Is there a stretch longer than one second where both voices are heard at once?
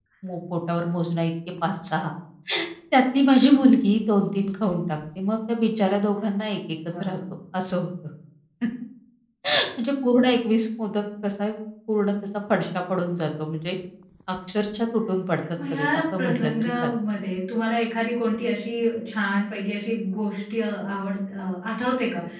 Yes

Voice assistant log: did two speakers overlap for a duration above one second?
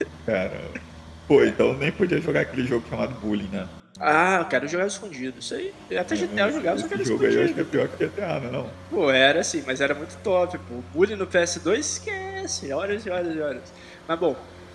Yes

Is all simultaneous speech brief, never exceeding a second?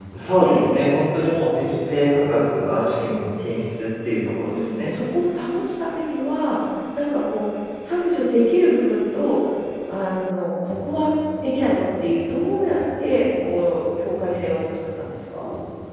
Yes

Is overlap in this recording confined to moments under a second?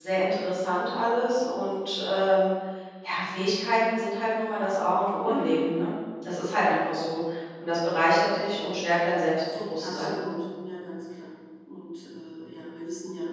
Yes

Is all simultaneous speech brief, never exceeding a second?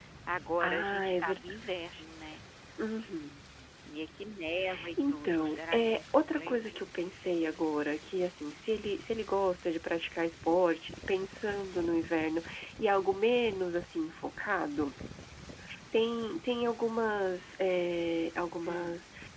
No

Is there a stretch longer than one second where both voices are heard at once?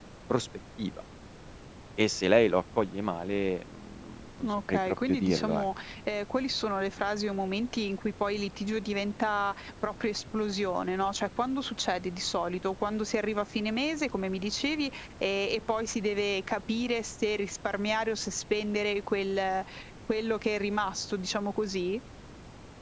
Yes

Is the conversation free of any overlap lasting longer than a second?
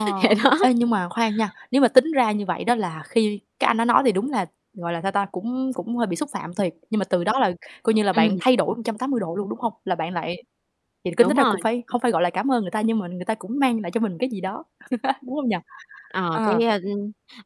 Yes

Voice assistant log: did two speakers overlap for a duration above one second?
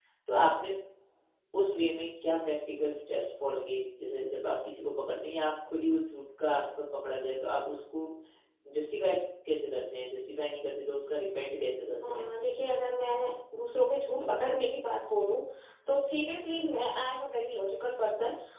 No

